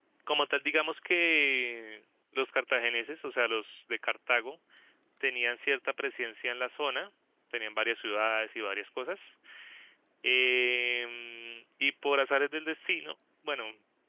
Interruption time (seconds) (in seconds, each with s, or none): none